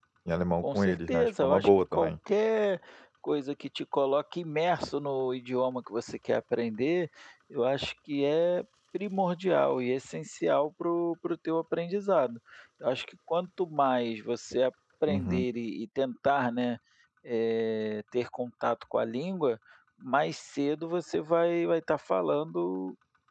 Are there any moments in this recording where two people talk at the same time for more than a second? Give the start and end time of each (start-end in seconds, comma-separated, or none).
0.6-2.1